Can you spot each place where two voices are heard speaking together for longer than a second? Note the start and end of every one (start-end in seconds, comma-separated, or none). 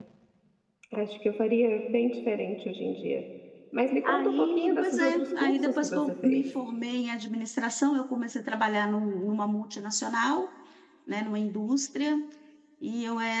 4.0-6.6